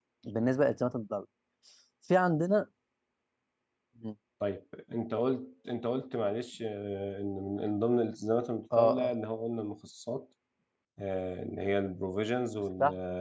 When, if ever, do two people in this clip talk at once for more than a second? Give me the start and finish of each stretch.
none

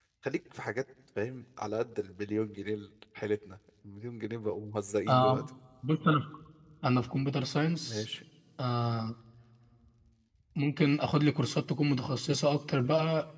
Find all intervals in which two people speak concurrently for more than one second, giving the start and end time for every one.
none

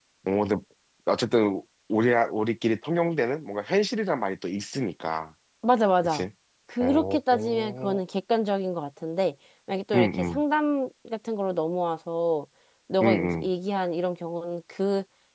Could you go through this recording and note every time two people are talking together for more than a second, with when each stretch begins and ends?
6.8-8.0

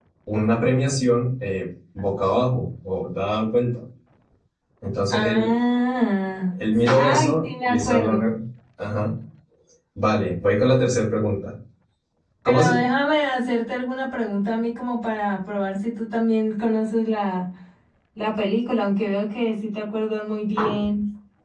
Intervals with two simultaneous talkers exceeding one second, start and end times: 6.7-8.2

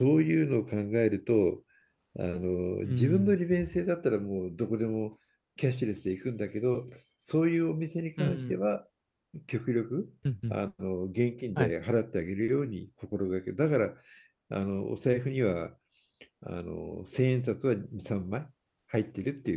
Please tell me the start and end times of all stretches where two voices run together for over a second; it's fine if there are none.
none

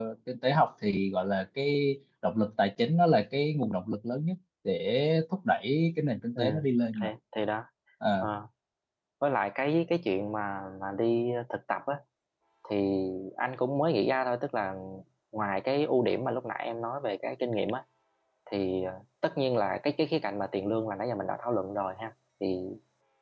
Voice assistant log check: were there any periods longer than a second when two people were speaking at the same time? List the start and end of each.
none

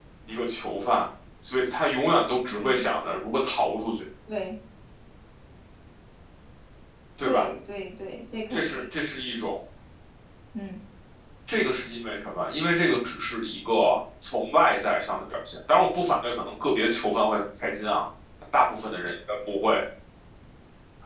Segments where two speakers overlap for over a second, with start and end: none

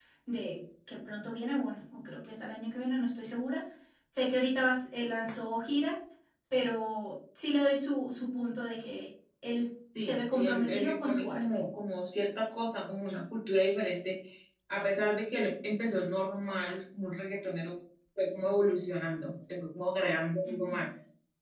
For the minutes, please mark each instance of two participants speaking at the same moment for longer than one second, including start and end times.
10.0-11.4

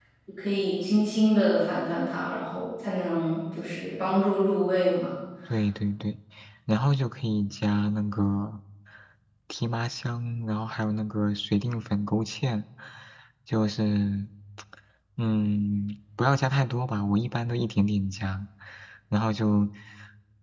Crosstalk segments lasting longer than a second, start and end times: none

